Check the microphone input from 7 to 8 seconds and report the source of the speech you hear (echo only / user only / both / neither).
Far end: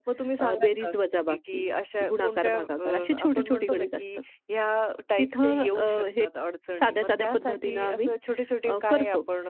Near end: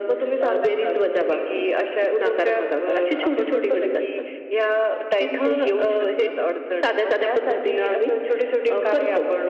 echo only